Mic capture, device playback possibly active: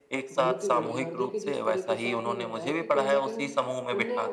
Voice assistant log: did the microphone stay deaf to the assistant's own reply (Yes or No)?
No